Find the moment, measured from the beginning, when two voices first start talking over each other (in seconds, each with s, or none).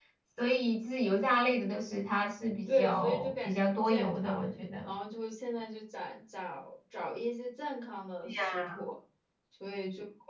2.7 s